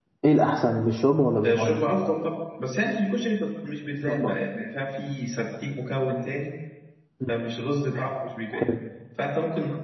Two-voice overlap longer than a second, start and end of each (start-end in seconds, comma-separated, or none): none